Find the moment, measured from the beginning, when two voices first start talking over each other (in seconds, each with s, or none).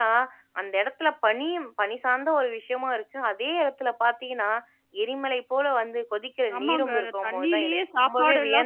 6.5 s